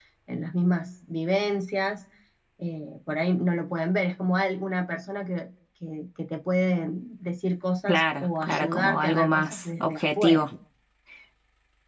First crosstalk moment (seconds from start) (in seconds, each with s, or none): 7.9 s